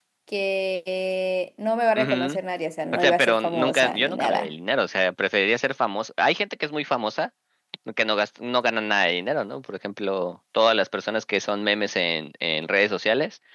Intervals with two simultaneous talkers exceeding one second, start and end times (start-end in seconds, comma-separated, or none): 2.9-4.5